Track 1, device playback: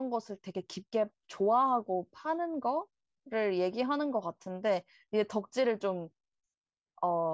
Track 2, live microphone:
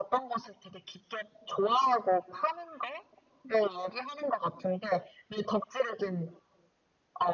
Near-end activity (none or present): none